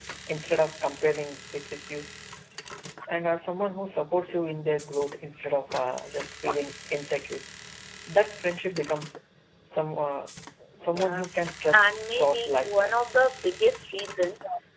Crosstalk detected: Yes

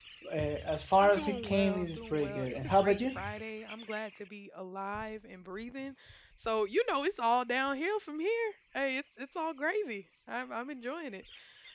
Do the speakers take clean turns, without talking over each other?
No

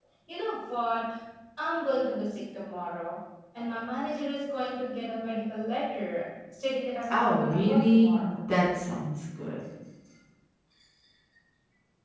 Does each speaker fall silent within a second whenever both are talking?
No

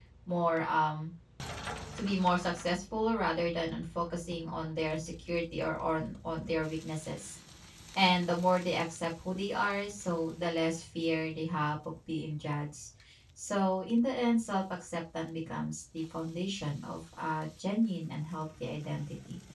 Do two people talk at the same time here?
No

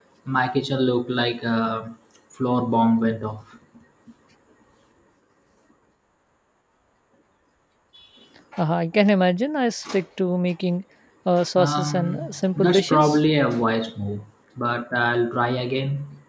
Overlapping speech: Yes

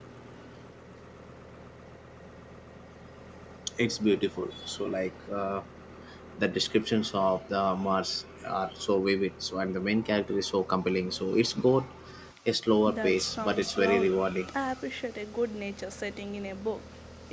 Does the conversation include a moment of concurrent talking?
Yes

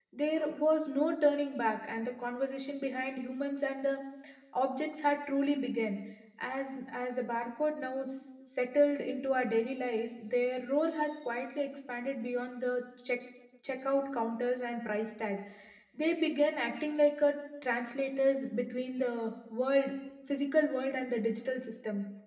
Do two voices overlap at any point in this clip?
No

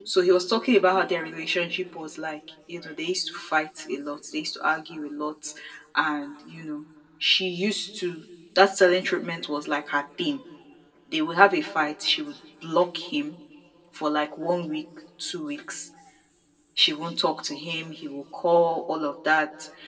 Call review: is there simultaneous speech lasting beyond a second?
No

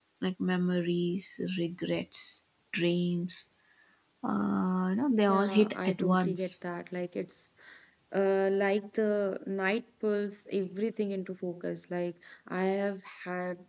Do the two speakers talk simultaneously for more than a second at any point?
Yes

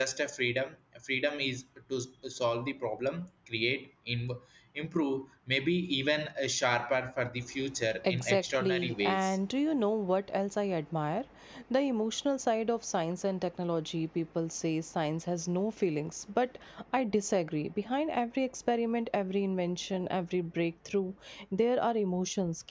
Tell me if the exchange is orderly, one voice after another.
No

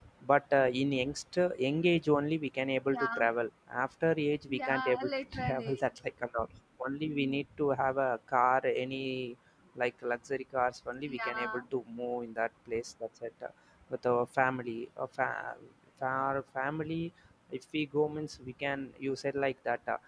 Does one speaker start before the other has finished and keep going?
Yes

